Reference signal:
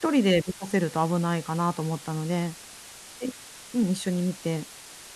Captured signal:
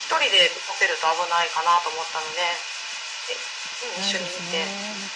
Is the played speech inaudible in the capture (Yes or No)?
No